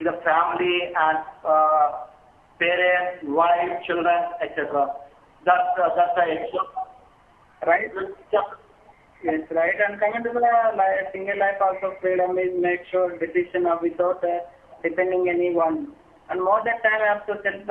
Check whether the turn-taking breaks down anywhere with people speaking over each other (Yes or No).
No